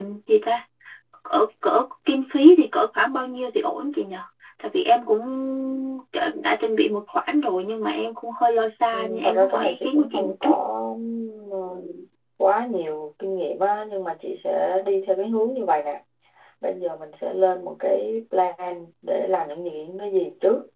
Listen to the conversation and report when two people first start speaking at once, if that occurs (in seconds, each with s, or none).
8.9 s